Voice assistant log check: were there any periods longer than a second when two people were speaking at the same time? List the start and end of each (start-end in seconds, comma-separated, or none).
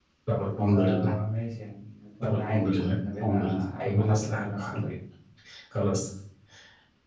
2.2-4.8